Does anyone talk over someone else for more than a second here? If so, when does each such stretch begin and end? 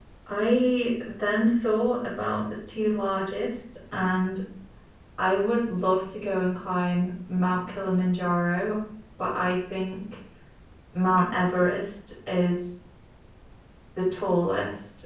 none

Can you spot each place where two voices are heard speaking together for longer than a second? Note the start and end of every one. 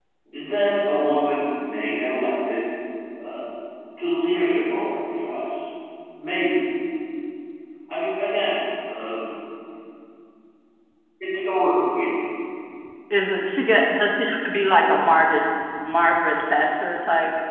none

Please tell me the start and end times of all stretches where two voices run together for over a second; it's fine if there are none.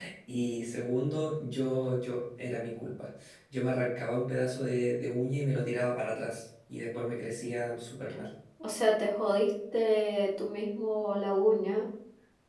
none

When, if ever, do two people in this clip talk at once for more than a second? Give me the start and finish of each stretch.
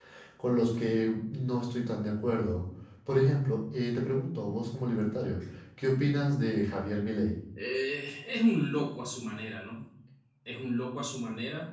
none

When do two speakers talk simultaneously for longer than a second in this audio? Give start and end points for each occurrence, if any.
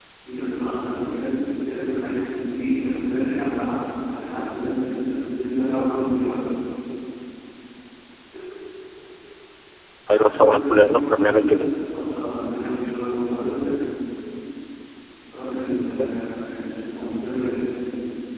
10.1-11.6

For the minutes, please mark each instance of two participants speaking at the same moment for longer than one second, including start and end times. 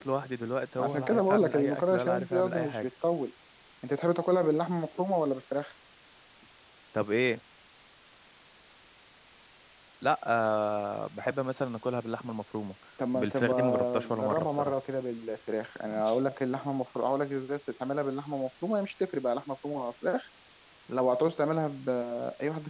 0.8-2.8, 13.1-14.8

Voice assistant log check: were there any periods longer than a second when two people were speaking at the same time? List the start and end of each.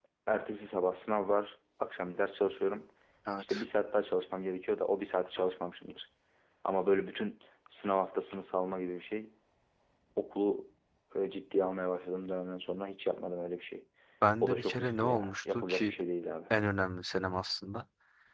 14.4-15.9

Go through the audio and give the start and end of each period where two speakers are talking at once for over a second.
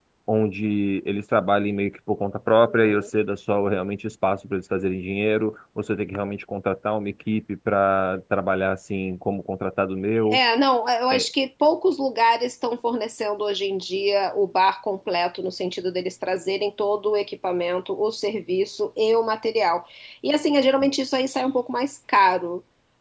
none

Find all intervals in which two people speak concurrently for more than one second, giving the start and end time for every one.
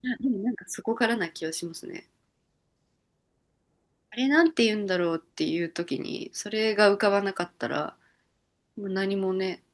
none

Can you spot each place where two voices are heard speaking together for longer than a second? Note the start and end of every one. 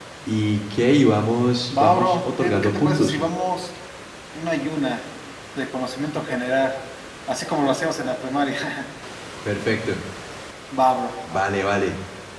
1.8-3.2

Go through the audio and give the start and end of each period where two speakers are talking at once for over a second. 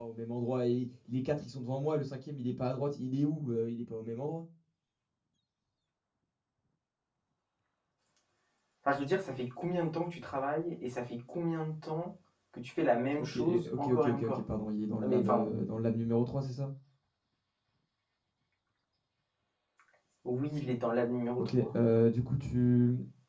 13.2-14.4

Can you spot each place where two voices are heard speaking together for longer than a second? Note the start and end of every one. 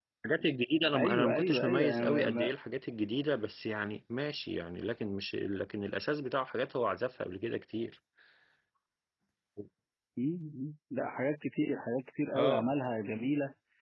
0.9-2.5

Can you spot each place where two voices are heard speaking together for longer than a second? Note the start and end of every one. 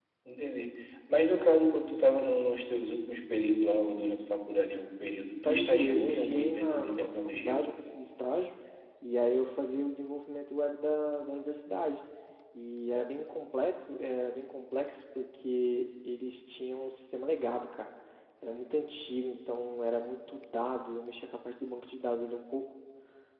5.4-7.6

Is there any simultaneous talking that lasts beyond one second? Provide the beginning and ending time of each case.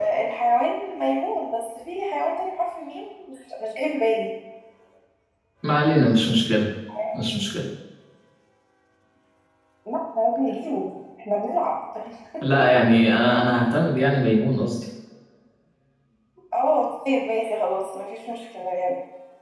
none

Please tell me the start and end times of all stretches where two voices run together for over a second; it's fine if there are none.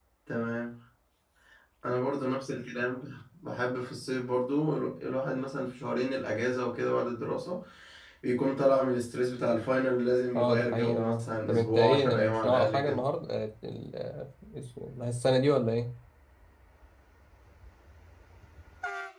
10.4-13.0

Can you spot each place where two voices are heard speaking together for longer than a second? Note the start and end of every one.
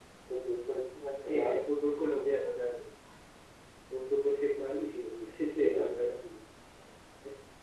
4.9-6.2

